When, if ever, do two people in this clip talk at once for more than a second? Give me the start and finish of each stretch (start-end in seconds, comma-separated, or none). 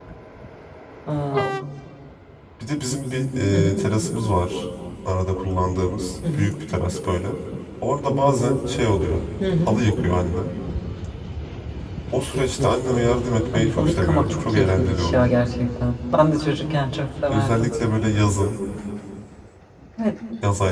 13.5-15.3